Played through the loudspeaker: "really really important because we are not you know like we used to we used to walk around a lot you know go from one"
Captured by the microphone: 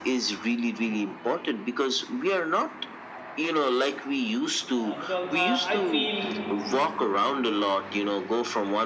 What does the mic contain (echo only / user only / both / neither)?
both